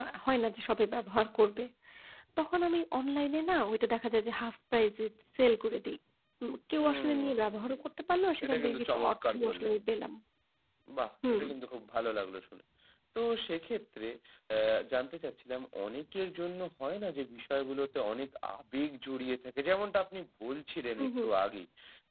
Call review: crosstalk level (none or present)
present